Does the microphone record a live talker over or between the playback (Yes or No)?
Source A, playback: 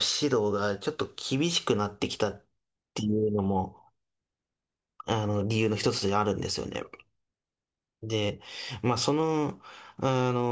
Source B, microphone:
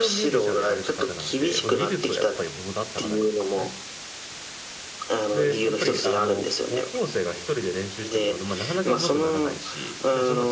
Yes